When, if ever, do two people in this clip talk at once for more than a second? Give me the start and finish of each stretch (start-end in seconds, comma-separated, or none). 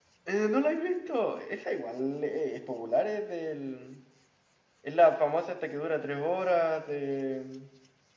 none